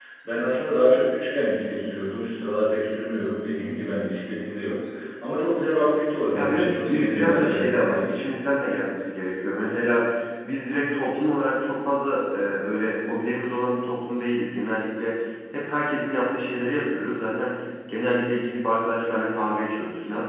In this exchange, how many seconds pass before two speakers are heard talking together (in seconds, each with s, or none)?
6.3 s